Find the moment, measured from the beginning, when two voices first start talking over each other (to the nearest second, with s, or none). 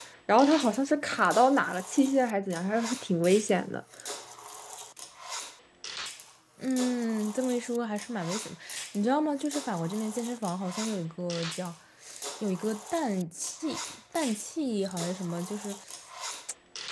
none